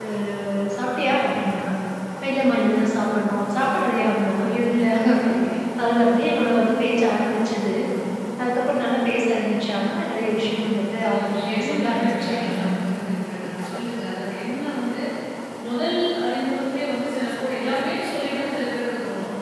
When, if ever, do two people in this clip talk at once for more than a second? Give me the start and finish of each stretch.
11.0-12.6

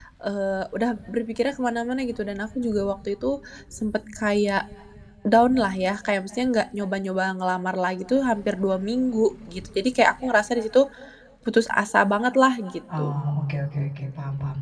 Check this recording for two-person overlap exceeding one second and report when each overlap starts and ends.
none

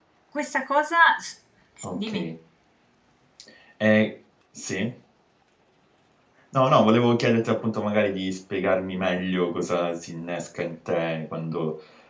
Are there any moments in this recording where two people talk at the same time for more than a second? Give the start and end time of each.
none

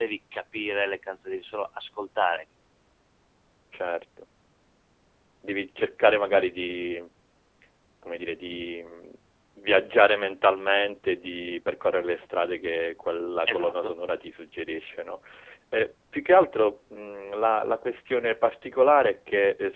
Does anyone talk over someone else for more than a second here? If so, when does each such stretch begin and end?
none

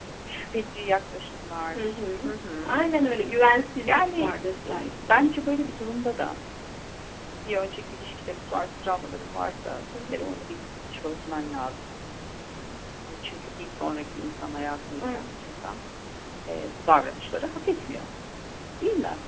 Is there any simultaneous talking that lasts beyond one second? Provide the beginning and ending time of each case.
1.8-3.4, 3.8-5.2

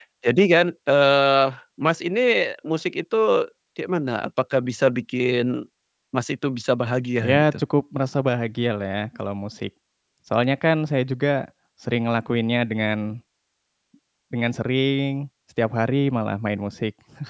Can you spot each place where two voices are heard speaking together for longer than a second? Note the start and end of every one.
none

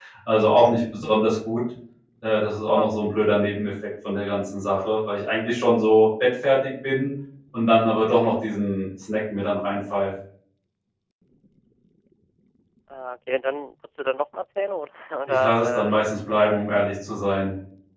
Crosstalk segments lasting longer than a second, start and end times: 15.3-16.7

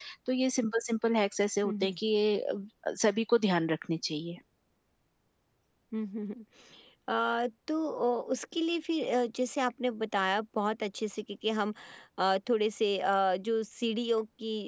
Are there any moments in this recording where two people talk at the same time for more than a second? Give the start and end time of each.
none

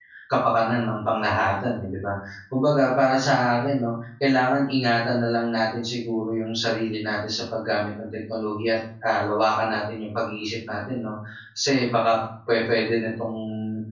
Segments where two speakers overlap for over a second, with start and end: none

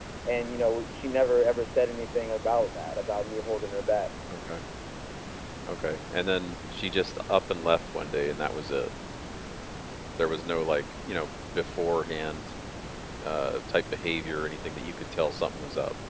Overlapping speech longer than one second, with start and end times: none

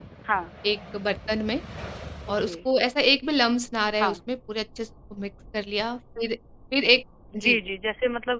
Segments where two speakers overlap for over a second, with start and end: none

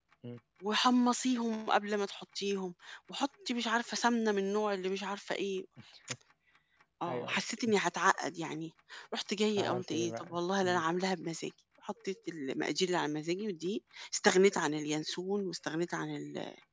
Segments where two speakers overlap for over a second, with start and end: 9.6-10.8

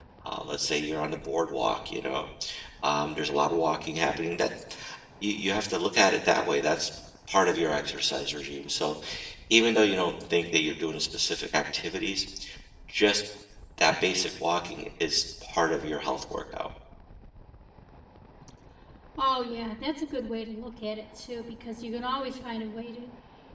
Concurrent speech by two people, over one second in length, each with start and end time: none

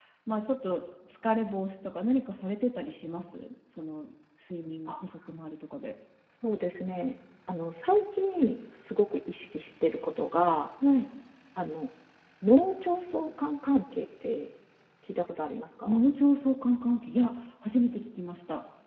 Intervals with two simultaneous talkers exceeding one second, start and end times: none

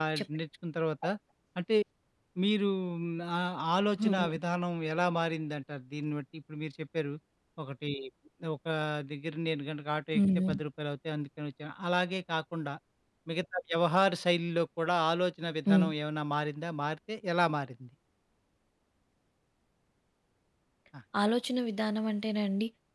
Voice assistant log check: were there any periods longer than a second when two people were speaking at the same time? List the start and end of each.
none

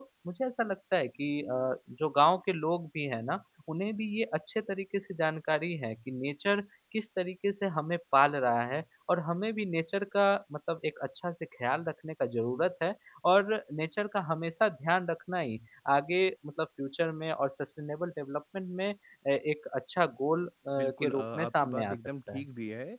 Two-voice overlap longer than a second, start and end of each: 20.8-22.4

